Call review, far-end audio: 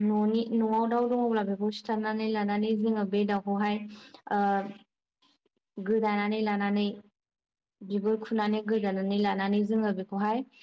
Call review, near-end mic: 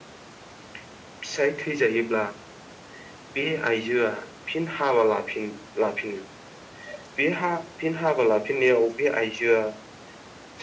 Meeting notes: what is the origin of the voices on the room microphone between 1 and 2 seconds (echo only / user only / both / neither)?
user only